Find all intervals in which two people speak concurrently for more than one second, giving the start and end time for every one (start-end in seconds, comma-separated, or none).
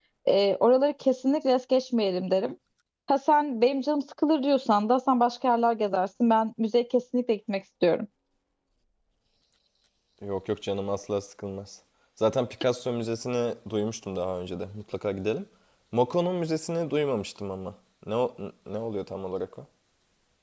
none